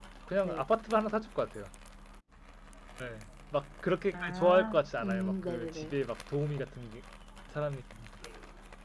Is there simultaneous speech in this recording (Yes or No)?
Yes